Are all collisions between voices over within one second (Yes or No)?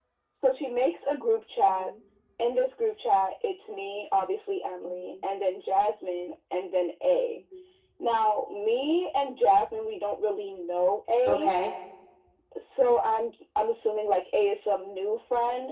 Yes